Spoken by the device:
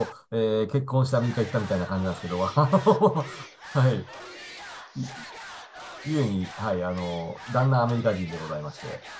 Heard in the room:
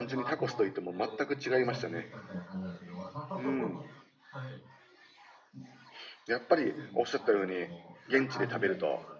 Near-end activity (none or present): present